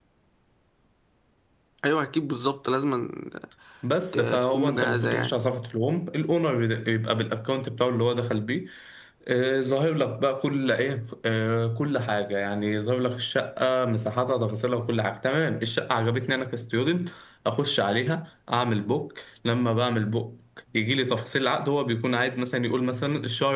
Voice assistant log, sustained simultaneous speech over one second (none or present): present